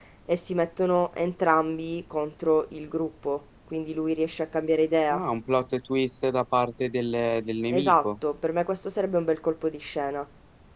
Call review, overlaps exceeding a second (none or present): none